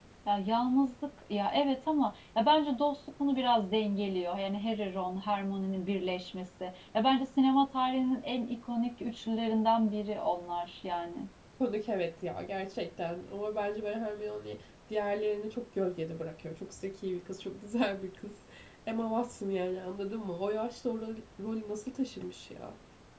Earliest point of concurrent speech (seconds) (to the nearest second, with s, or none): none